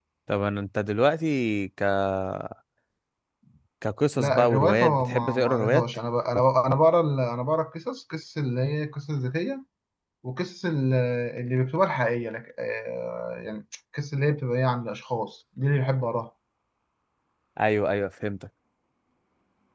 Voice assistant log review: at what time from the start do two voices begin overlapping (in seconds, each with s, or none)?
4.2 s